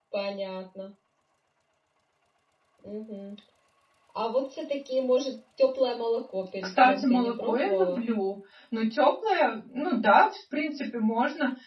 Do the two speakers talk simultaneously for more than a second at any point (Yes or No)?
Yes